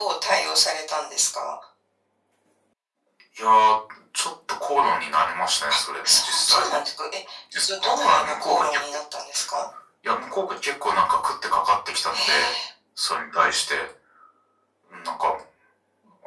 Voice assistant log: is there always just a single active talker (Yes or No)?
No